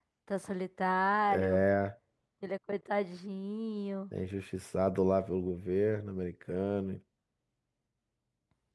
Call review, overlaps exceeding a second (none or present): none